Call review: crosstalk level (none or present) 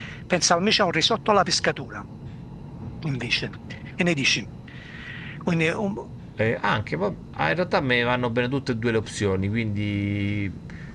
none